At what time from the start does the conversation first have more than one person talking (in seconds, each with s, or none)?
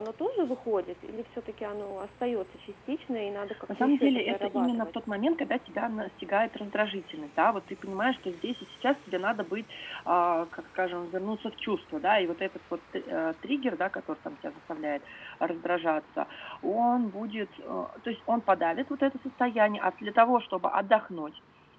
3.5 s